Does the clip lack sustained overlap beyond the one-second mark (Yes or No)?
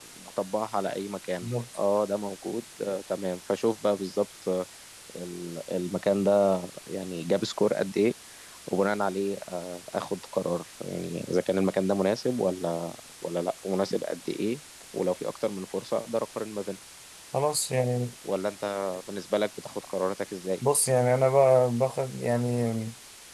Yes